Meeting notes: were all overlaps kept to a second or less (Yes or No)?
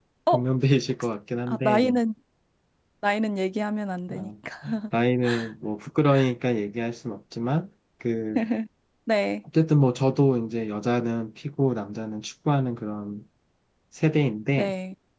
Yes